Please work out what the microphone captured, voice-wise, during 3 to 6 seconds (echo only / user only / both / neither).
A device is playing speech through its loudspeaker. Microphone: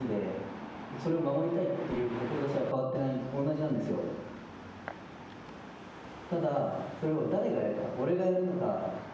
user only